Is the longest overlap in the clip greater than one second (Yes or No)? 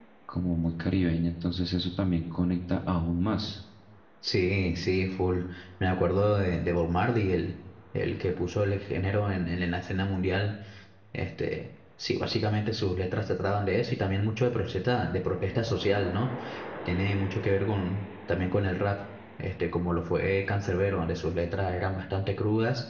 No